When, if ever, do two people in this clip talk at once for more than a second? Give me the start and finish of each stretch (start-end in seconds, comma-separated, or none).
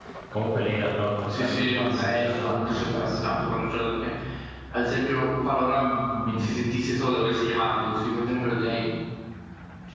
1.4-3.3